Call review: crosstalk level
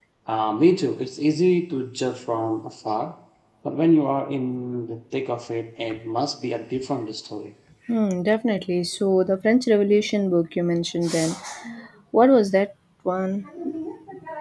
none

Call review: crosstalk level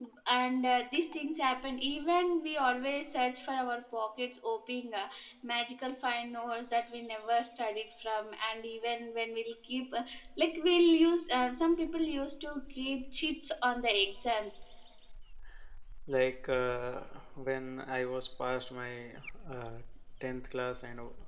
none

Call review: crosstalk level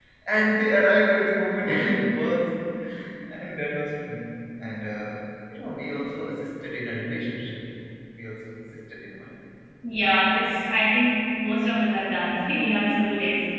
none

